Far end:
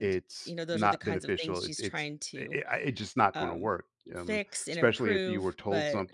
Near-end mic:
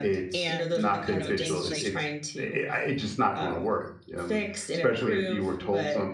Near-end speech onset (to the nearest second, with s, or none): 0 s